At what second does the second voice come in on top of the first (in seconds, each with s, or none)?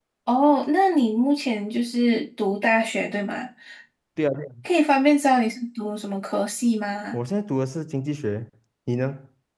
none